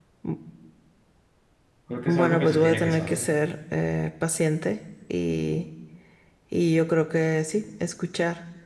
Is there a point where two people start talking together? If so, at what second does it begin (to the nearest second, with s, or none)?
2 s